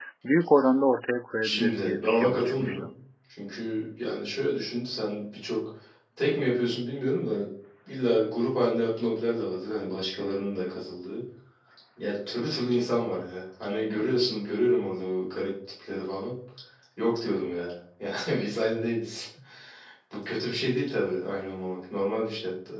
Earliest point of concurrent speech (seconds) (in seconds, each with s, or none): 1.4 s